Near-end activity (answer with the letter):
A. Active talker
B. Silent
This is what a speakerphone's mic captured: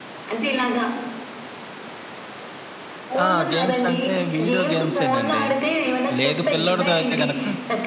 A